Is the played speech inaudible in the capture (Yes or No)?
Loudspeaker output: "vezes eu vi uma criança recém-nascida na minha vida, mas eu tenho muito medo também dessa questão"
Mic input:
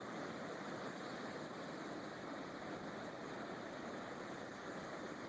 Yes